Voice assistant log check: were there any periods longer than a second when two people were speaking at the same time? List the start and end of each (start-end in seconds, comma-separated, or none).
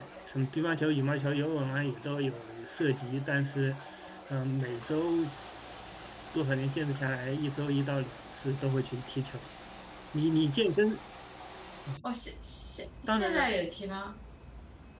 none